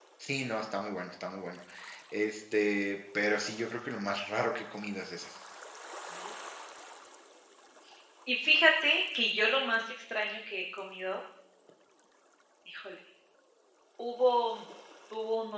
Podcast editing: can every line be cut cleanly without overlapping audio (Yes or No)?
Yes